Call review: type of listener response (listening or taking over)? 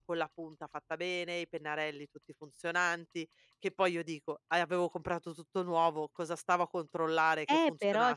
taking over